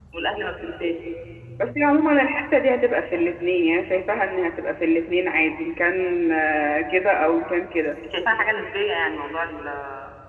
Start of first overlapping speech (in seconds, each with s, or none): none